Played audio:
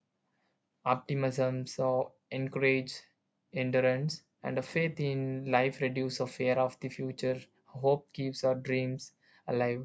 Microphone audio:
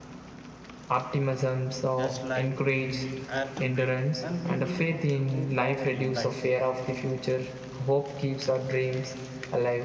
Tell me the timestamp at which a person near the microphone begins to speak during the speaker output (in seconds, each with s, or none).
2.0 s